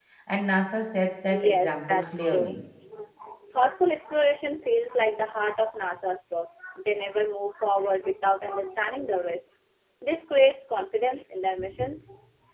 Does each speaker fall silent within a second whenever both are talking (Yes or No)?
No